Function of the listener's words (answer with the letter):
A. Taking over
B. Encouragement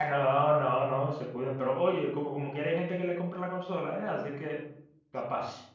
A